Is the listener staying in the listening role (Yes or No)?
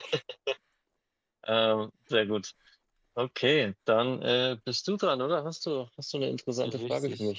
No